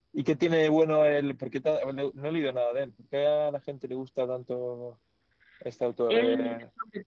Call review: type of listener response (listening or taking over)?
taking over